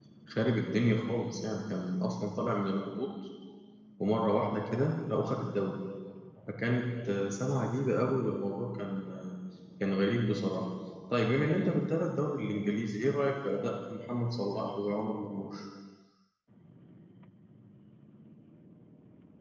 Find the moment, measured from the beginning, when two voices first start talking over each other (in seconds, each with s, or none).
none